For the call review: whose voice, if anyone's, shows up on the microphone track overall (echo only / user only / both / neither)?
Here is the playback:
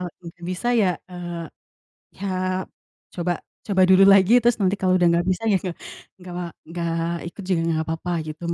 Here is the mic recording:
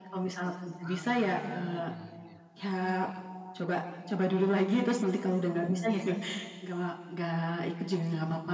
both